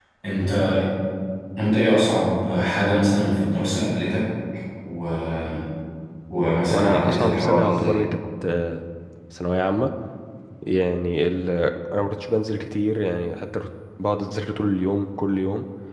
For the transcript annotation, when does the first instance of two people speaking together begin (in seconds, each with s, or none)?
6.7 s